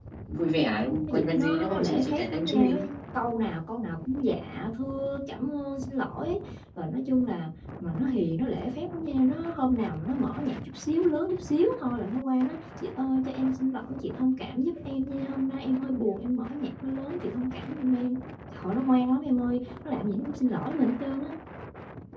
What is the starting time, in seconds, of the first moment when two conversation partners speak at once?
1.1 s

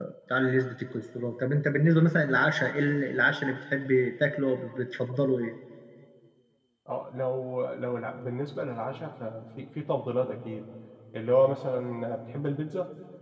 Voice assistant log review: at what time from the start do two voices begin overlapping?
none

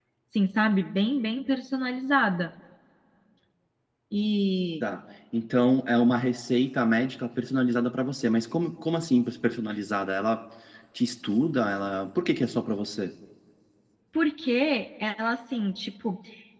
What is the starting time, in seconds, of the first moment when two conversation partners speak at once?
none

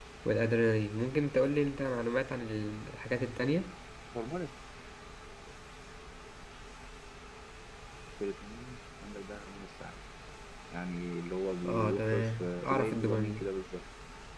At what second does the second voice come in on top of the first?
11.6 s

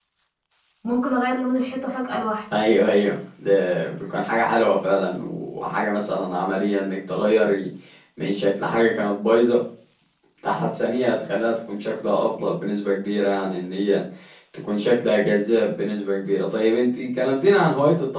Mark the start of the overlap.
none

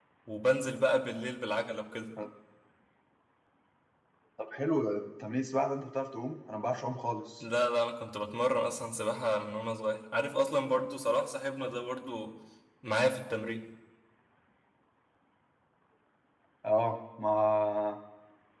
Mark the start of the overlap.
none

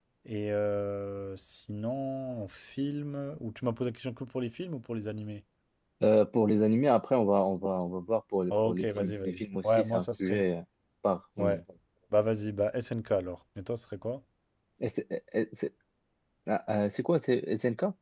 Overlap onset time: 8.5 s

